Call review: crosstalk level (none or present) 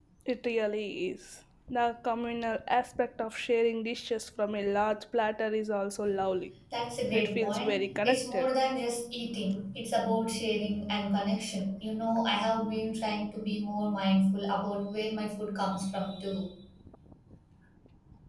present